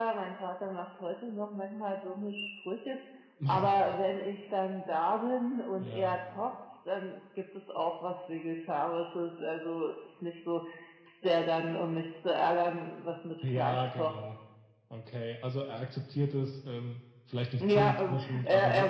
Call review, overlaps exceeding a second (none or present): present